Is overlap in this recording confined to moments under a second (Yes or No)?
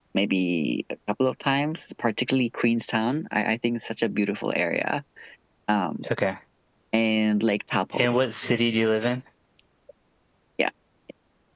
Yes